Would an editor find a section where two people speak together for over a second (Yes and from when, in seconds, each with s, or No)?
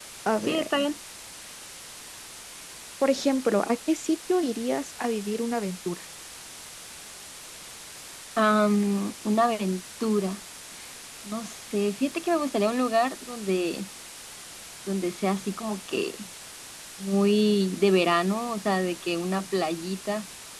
No